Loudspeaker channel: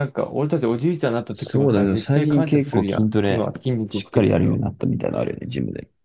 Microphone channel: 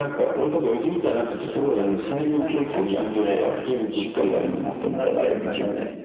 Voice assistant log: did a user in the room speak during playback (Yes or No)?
Yes